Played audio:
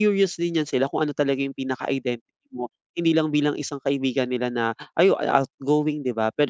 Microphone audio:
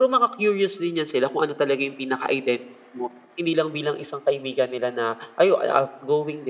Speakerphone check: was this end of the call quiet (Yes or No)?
Yes